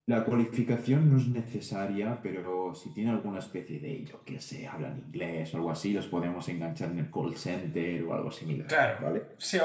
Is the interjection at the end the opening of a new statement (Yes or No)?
Yes